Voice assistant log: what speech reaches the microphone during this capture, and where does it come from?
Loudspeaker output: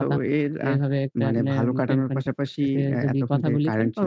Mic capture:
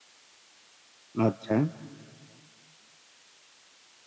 user only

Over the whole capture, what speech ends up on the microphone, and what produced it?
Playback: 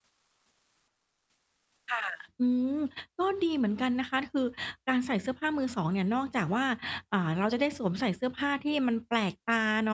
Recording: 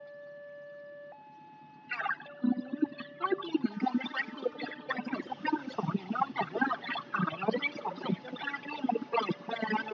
echo only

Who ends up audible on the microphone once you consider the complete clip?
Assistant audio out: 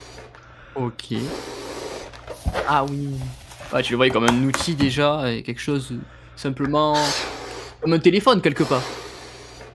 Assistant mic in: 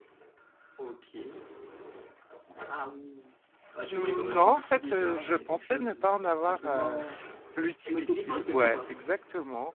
both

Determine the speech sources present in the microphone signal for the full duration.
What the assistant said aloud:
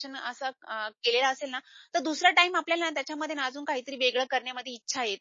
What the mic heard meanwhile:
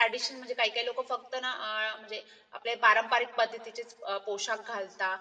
user only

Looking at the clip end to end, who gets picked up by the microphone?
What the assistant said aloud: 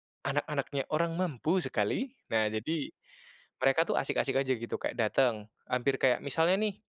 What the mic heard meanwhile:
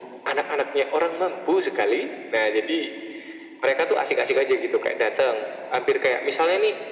echo only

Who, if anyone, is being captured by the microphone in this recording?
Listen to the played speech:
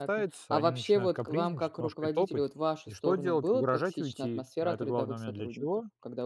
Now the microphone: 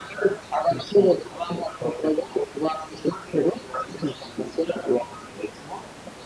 echo only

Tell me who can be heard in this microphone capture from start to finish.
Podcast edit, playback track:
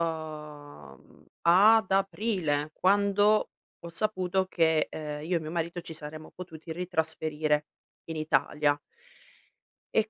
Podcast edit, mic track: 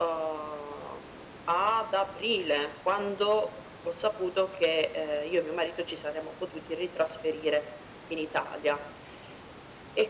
echo only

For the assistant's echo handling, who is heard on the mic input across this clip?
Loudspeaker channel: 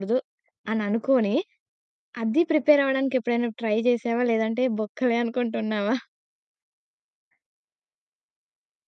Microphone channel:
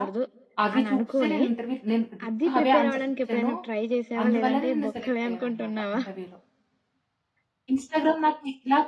both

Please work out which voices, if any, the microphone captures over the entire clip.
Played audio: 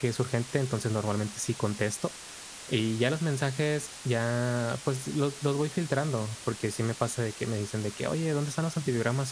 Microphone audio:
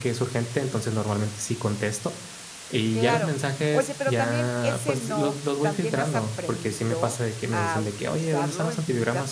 both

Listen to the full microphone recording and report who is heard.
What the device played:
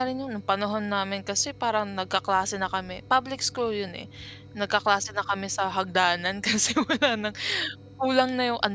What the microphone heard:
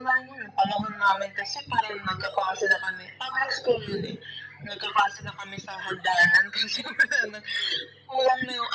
echo only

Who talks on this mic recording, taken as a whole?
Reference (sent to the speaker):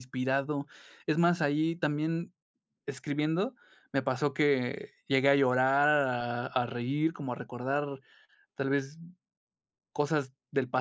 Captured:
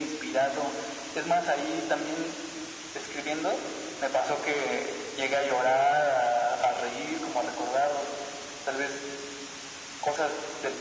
echo only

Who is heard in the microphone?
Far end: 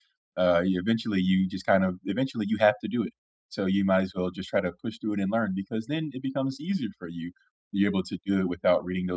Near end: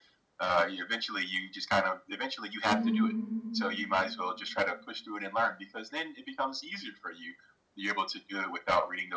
both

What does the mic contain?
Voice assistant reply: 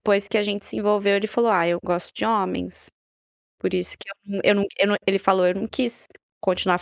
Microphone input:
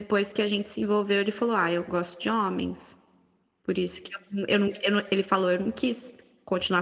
echo only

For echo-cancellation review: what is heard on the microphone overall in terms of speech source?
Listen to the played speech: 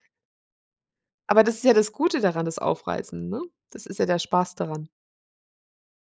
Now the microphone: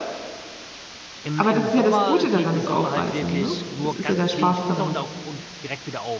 both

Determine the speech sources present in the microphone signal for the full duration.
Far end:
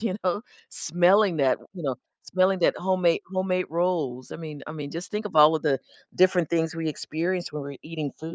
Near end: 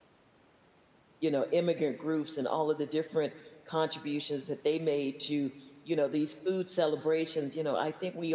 user only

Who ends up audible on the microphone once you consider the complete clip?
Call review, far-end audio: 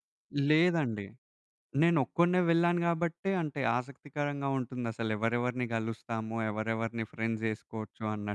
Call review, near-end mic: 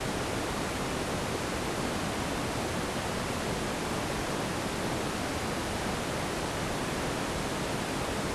neither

